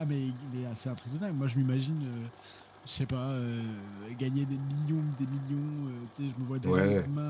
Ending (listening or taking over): listening